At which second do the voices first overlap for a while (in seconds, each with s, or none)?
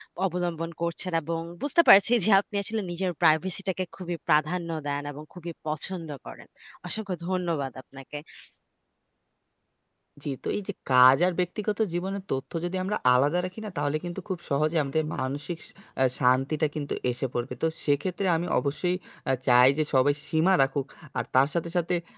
none